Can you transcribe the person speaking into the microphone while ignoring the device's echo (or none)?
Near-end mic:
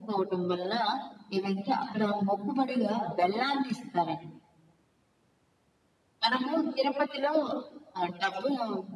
none